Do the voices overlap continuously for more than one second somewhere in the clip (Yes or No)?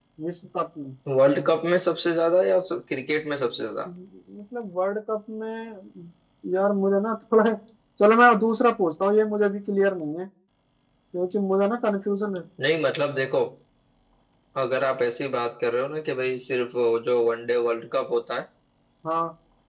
No